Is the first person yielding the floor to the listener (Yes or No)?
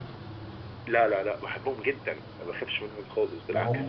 Yes